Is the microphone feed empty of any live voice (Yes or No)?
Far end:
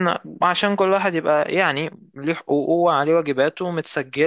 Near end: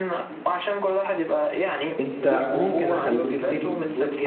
No